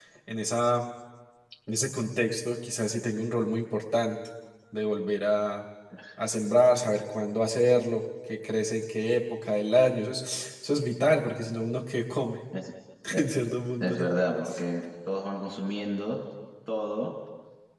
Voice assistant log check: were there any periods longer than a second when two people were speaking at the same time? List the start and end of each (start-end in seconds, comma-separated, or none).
none